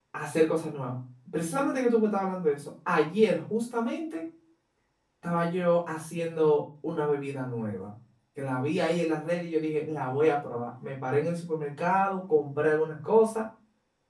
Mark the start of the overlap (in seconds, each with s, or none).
none